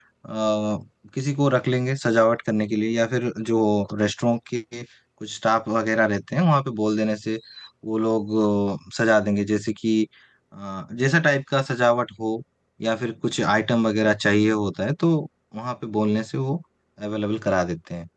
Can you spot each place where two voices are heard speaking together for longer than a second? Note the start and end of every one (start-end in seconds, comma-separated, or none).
none